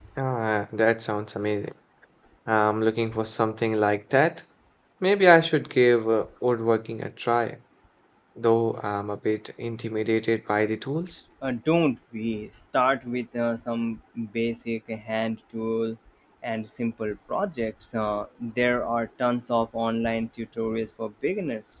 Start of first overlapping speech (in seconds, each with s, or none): none